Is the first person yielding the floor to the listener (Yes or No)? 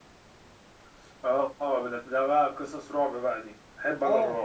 Yes